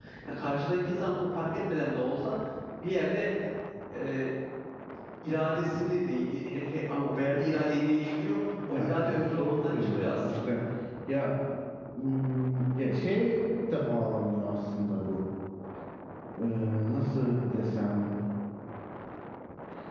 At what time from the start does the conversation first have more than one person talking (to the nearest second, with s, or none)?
9 s